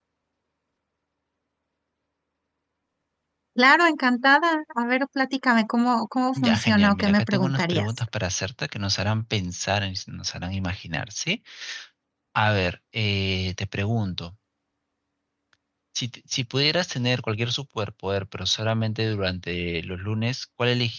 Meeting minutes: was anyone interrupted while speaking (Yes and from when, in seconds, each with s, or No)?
Yes, from 6.4 s